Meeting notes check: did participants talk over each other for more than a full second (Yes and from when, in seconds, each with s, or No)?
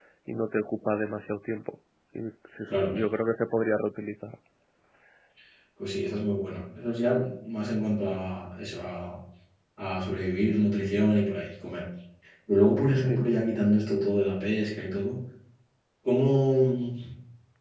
No